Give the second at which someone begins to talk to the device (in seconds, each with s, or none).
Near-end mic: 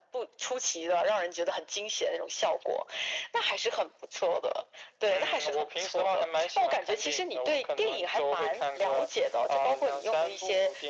none